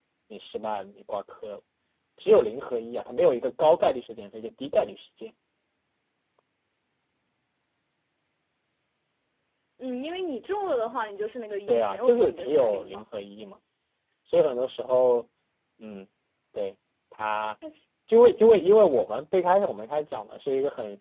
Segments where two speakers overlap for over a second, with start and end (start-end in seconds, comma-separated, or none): 11.7-13.0